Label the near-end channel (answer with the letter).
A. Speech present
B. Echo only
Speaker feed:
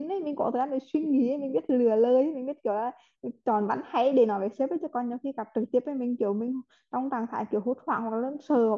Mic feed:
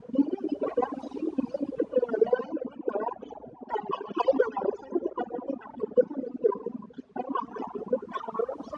B